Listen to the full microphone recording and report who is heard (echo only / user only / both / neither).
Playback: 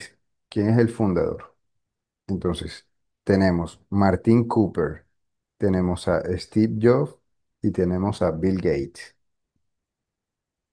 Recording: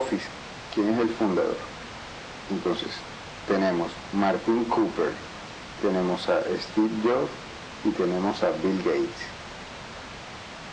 echo only